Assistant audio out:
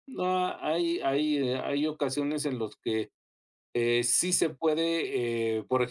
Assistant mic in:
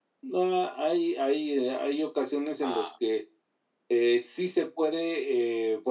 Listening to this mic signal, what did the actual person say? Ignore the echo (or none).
ah,